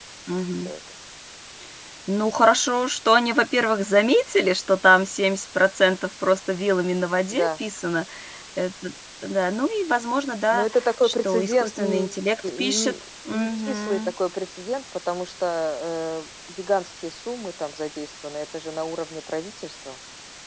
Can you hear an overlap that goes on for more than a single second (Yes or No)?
Yes